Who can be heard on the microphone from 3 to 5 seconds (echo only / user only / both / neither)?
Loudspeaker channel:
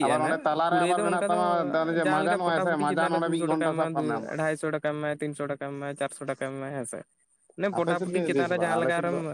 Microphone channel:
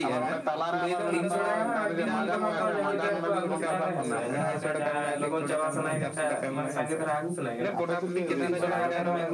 both